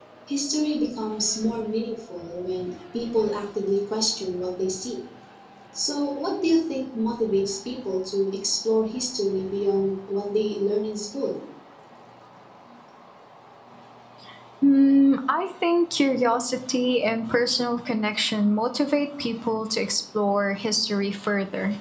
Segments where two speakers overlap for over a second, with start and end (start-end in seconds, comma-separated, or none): none